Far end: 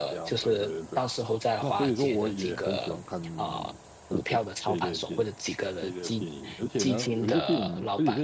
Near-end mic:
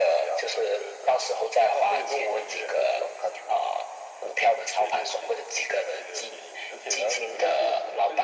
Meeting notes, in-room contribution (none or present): none